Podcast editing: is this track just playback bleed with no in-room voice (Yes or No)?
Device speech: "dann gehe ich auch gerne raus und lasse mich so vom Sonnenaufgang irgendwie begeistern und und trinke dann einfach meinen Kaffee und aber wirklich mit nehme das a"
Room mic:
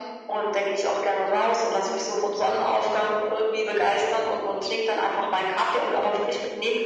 Yes